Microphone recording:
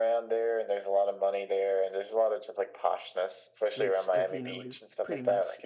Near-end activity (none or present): present